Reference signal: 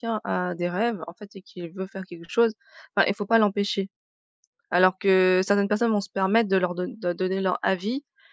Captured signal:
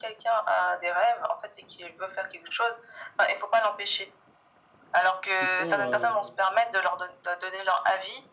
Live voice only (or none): ce qu'ils font, heu,